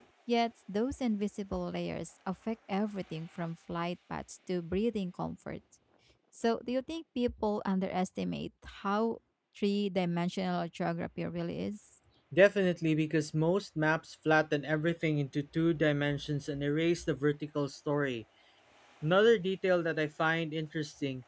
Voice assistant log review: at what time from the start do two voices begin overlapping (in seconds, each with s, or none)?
none